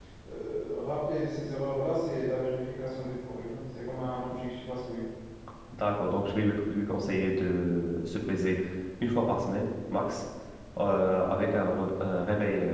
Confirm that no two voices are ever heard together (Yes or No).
Yes